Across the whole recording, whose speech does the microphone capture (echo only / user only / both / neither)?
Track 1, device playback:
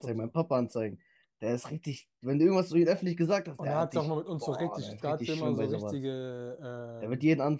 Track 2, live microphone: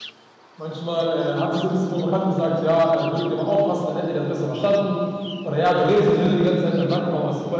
user only